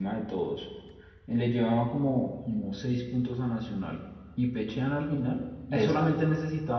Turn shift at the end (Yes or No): No